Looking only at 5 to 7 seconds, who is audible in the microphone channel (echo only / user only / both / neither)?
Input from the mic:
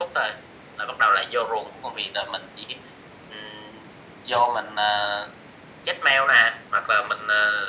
echo only